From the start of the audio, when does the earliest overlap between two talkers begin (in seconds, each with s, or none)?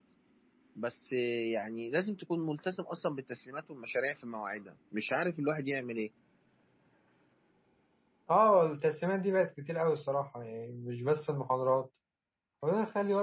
none